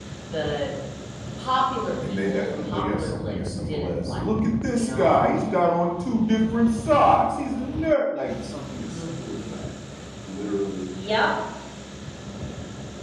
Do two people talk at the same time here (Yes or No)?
Yes